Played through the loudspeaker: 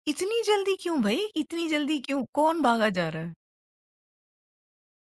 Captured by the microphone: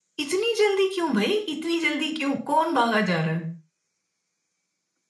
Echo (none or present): present